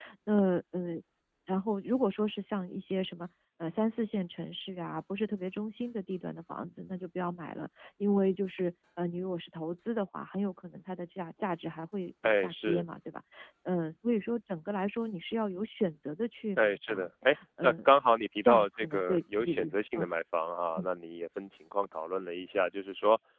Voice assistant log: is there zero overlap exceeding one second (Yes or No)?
No